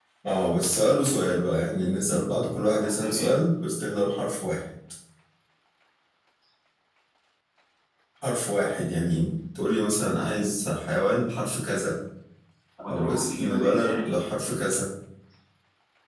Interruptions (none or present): present